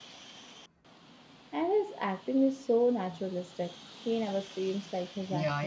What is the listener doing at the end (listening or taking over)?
taking over